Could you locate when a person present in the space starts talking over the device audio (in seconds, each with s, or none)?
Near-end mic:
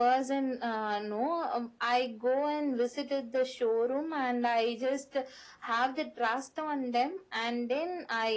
none